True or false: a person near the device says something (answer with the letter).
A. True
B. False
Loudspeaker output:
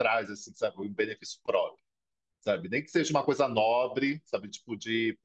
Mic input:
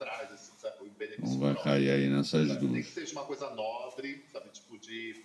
A